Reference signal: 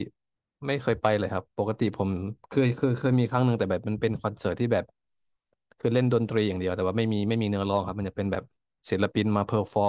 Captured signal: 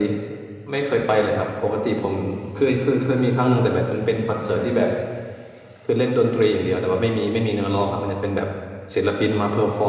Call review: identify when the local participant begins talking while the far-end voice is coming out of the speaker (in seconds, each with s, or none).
none